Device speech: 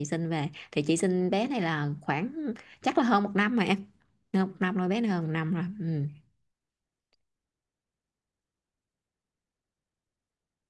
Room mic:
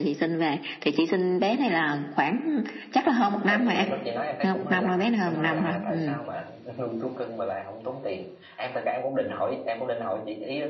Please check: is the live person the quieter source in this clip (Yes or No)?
Yes